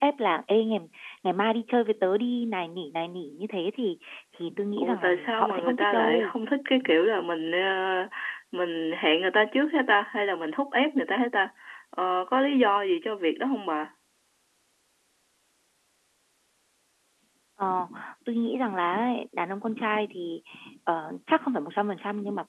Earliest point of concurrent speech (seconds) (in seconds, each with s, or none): 4.8 s